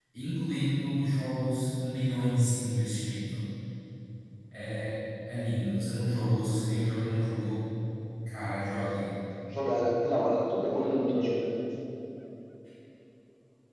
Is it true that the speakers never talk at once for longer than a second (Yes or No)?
Yes